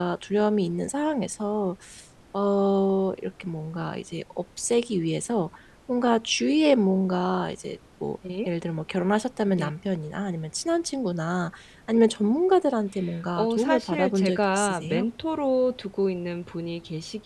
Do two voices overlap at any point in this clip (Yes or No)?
Yes